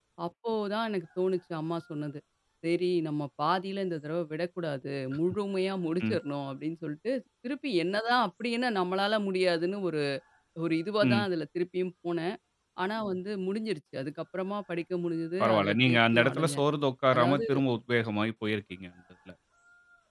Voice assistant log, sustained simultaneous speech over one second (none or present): present